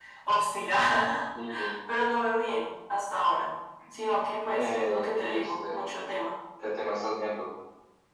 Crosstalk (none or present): present